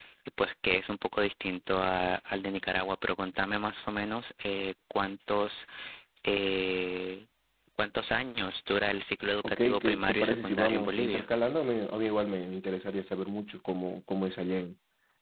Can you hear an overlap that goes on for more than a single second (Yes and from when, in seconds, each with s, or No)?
Yes, from 9.4 s